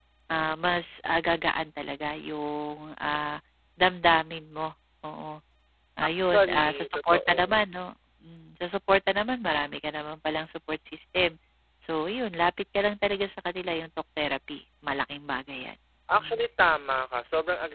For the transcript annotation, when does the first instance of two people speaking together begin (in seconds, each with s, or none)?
6.1 s